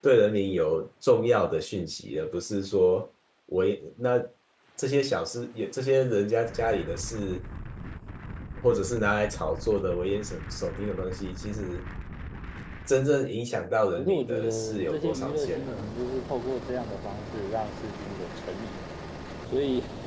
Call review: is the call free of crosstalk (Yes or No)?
No